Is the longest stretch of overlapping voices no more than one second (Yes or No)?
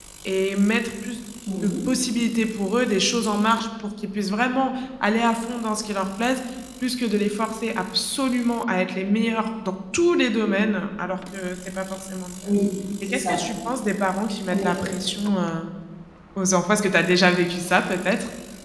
Yes